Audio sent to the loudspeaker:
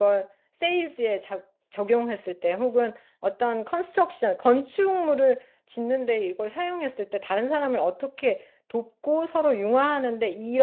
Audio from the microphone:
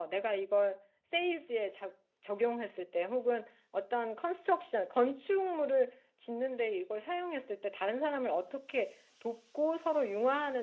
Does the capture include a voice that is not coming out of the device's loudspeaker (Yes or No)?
No